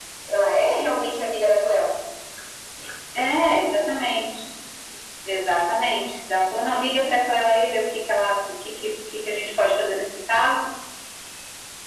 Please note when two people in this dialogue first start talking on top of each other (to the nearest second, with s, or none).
none